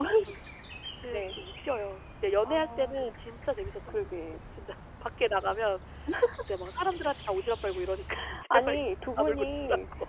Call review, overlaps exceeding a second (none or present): present